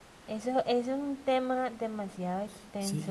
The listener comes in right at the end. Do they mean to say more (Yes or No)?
Yes